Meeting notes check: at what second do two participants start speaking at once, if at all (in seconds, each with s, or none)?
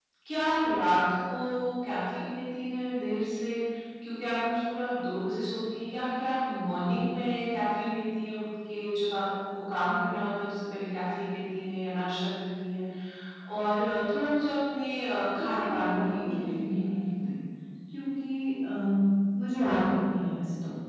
15.3 s